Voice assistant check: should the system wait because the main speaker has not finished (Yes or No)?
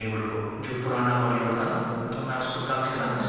No